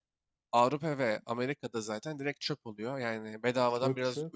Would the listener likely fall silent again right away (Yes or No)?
No